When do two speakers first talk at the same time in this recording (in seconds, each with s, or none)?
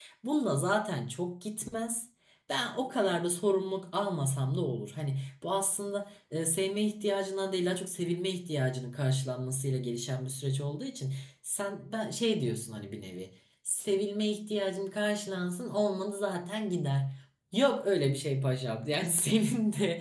none